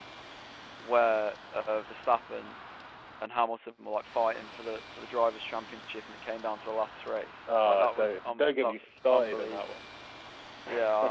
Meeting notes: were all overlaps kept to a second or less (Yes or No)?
No